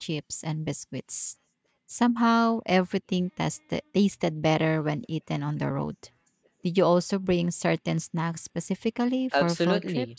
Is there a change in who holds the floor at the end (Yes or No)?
Yes